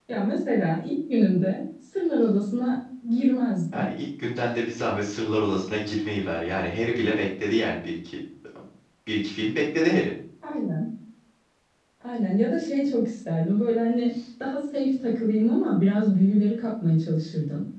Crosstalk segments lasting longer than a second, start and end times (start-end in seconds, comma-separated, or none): none